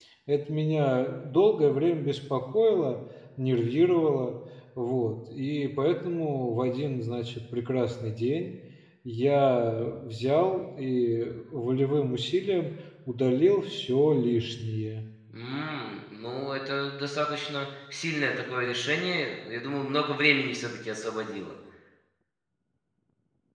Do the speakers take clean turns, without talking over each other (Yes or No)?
Yes